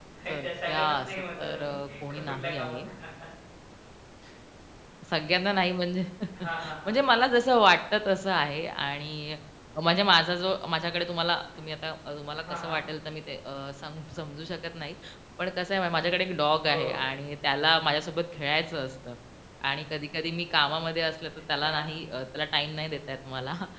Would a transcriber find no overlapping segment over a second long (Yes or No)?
No